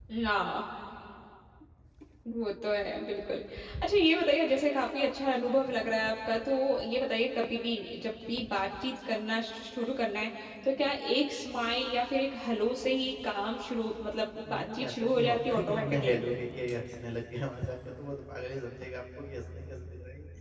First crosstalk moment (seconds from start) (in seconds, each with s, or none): 14.5 s